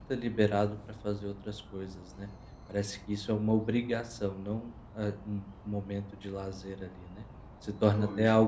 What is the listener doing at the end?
listening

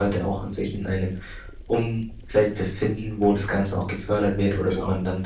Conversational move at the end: listening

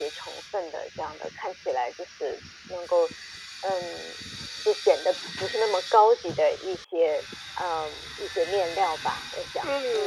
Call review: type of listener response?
taking over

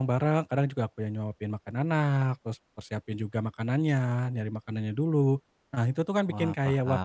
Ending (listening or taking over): listening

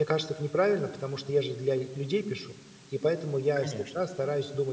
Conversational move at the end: listening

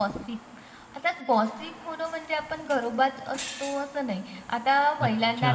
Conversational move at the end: listening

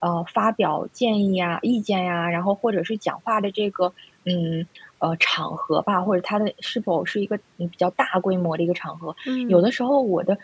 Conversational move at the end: listening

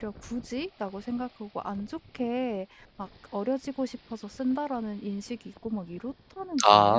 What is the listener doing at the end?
taking over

